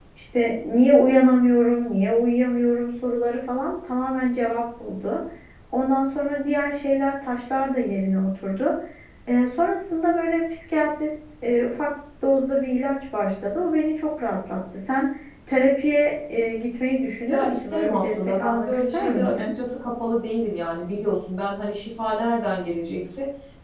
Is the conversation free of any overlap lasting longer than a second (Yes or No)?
No